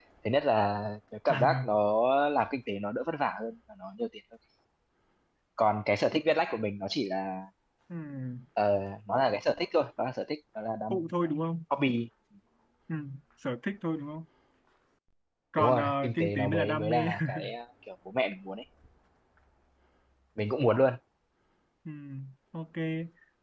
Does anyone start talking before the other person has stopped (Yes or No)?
Yes